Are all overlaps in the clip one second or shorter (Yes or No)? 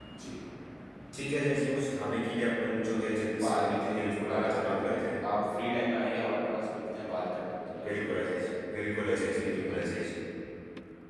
No